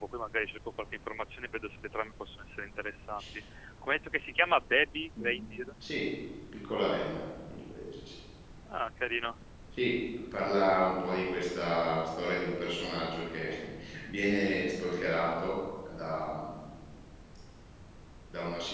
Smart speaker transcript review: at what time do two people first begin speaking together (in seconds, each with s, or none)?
none